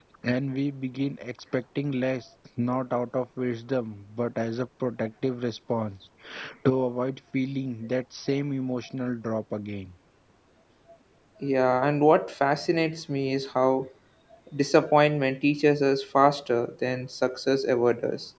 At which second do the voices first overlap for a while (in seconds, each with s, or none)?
none